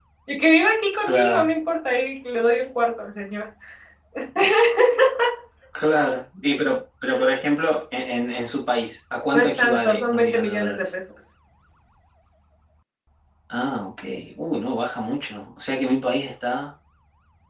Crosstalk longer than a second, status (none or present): present